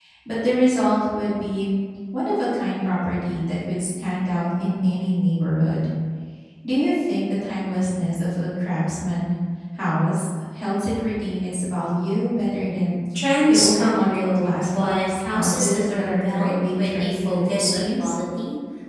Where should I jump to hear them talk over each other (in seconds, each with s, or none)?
13.5 s